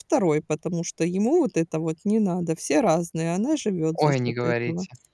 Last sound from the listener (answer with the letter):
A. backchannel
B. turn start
B